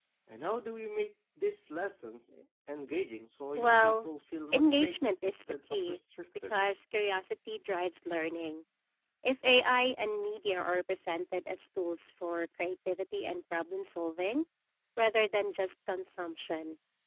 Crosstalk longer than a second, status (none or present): present